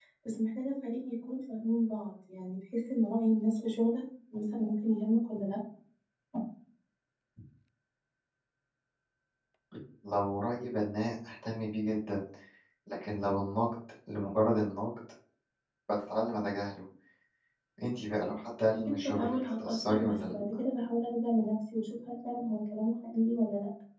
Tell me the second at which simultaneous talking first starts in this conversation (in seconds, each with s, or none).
18.7 s